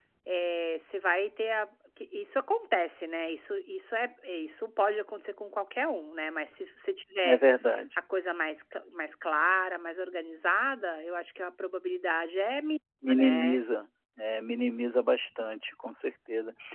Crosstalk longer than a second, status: none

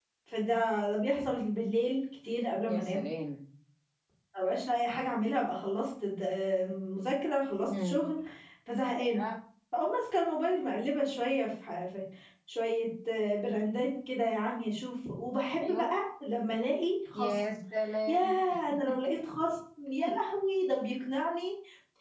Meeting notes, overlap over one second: none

